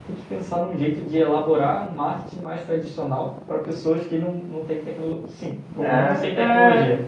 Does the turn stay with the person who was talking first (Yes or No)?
No